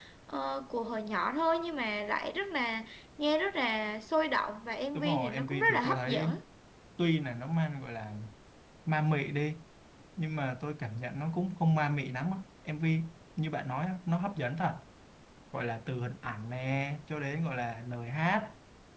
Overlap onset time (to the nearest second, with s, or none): 5 s